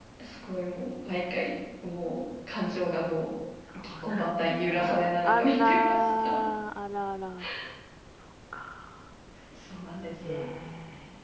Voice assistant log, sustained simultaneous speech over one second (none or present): present